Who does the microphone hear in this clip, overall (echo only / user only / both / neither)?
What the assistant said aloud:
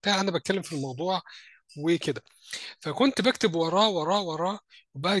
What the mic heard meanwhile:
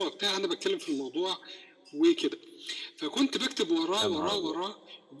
both